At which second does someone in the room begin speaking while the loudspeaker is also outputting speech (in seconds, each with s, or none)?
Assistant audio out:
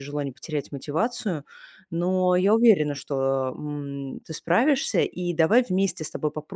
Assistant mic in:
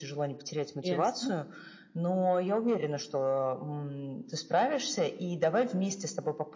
0.9 s